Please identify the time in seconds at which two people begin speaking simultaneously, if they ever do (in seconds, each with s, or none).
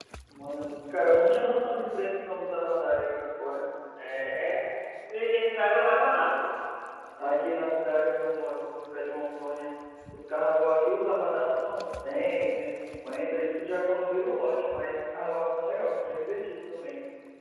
none